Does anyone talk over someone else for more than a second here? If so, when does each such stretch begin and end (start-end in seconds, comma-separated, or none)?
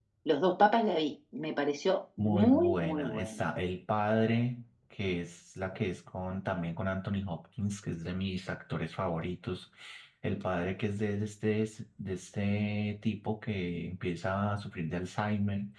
2.2-3.4